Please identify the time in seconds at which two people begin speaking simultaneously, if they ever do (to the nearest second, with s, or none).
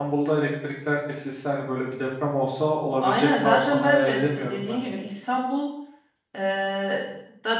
3 s